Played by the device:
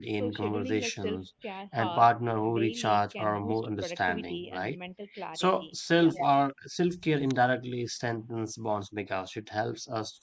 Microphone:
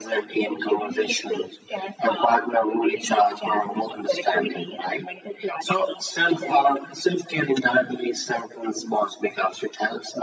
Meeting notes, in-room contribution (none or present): none